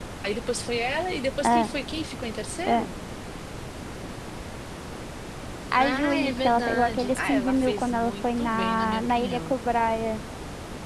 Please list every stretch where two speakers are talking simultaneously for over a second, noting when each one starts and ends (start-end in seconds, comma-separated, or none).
5.8-9.6